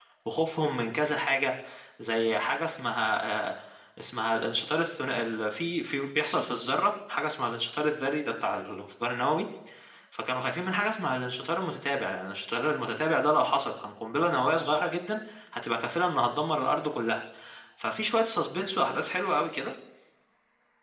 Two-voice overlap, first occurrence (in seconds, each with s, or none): none